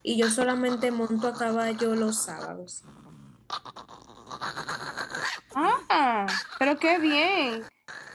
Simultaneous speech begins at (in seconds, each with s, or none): none